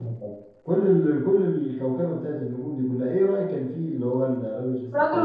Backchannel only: No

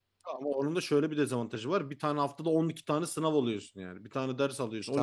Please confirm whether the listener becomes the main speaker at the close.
Yes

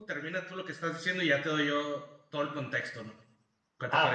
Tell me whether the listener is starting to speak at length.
Yes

